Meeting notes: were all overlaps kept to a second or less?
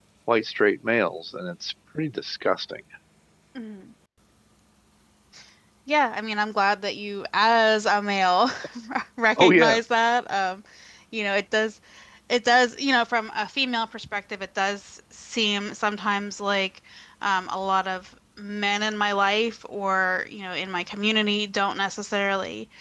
Yes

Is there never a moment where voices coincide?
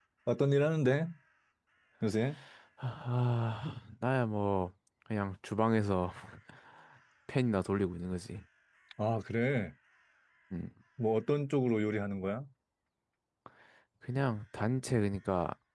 Yes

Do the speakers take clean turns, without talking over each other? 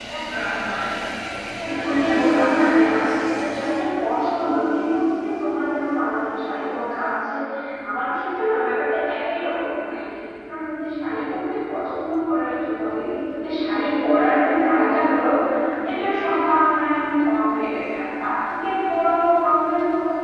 No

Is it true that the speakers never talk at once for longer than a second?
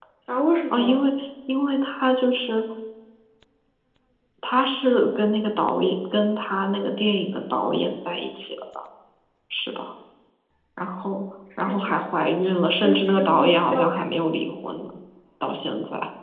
No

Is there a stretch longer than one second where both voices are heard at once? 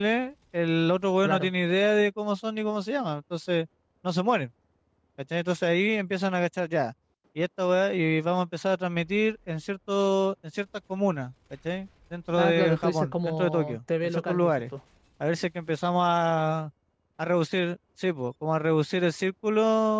Yes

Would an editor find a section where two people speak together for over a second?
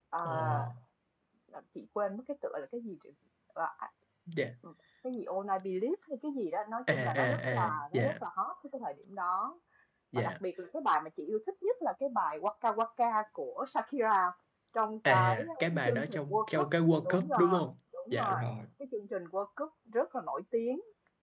Yes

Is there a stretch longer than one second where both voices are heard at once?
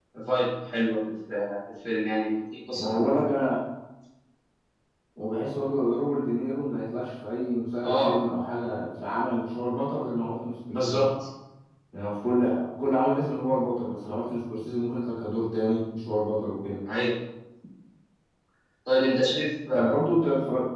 No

